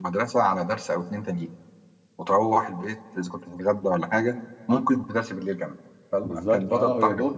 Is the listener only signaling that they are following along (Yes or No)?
No